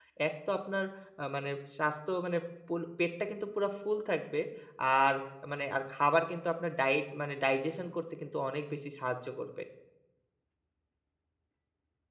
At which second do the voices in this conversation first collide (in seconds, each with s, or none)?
none